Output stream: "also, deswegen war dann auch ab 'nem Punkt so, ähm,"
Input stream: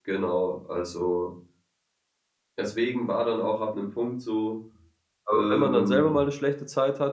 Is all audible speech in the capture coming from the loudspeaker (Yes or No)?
No